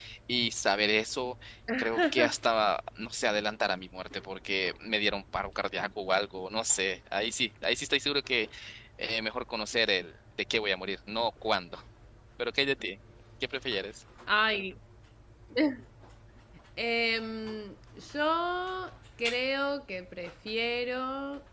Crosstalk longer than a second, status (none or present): none